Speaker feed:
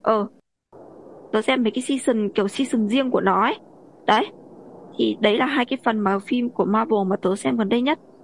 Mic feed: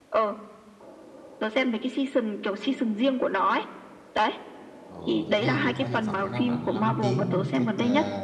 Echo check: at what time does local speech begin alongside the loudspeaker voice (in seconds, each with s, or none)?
4.9 s